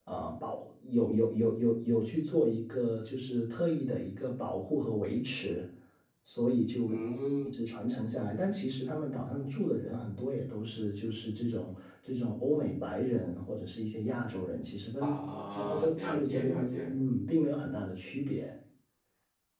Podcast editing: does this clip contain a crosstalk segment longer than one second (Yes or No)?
Yes